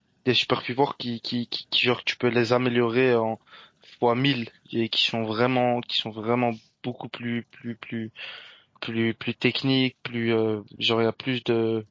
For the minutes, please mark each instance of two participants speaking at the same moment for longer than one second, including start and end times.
none

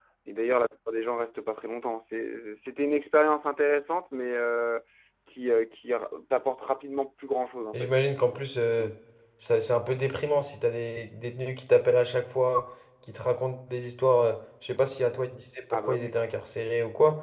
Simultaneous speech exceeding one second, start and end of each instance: none

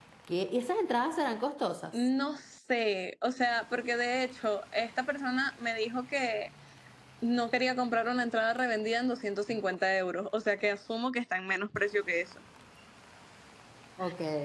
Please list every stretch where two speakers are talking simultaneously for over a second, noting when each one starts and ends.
none

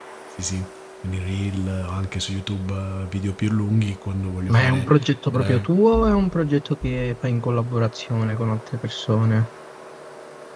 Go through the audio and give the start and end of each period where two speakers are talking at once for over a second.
none

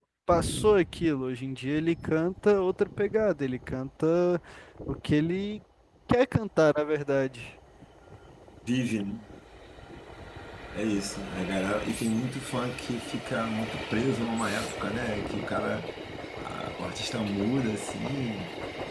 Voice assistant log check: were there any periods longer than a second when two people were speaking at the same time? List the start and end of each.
none

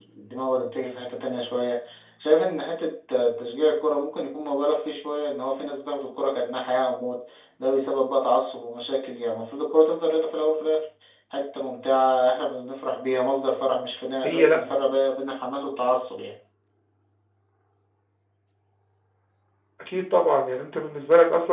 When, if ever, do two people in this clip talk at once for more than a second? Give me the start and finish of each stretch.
none

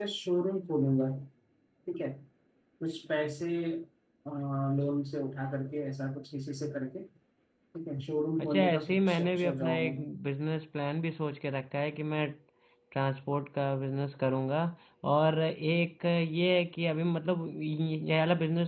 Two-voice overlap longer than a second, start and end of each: 8.4-10.1

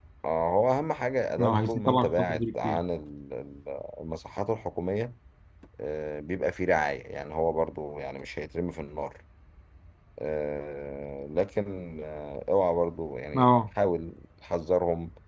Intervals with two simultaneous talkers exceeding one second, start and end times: 1.4-2.8

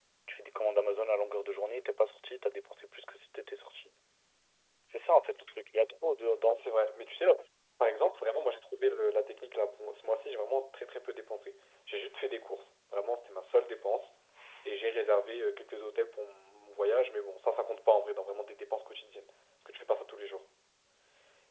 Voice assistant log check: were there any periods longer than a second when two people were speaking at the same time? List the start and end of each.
none

